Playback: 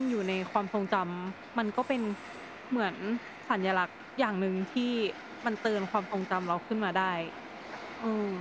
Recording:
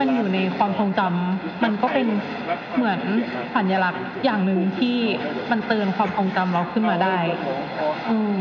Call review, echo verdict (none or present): present